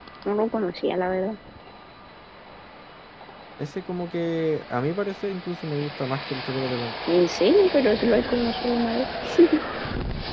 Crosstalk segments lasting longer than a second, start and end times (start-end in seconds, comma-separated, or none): none